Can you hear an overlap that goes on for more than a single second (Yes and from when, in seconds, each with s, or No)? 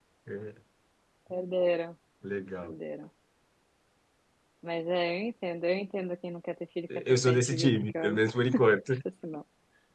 Yes, from 6.9 s